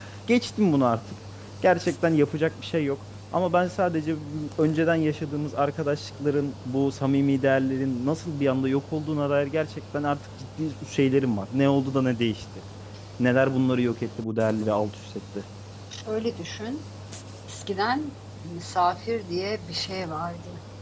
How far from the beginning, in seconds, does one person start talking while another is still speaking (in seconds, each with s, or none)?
none